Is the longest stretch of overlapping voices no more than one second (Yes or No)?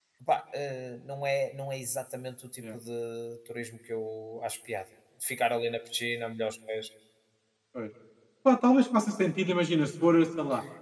Yes